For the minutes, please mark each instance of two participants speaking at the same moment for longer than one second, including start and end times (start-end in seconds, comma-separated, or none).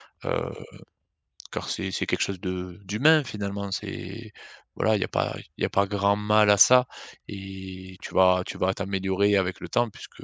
none